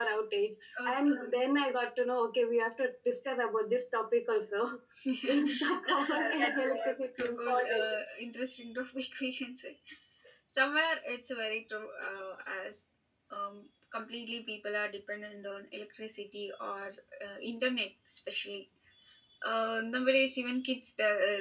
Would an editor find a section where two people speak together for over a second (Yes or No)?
Yes